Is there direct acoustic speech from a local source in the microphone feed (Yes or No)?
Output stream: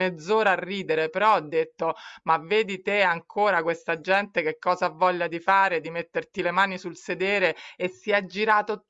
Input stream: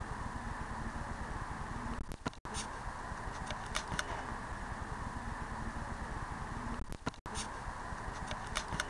No